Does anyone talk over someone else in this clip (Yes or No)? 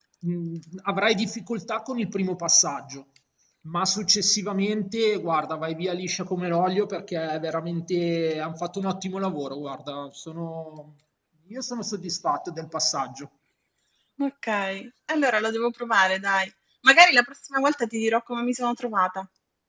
No